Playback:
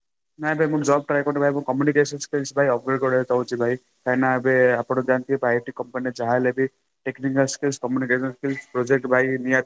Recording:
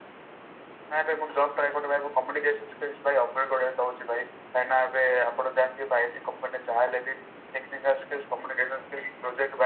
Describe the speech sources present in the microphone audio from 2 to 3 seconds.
echo only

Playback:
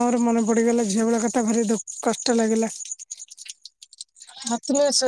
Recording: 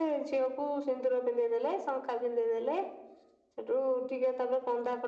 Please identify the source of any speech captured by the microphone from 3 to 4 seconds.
user only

